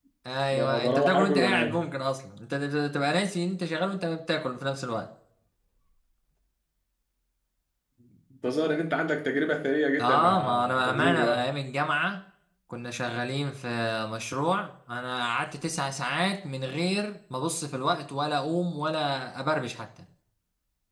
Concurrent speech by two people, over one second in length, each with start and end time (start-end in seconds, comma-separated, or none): 0.5-1.9, 10.0-11.4